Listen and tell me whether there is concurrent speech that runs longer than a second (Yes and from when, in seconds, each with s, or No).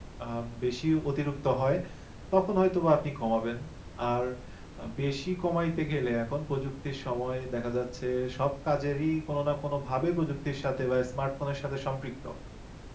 No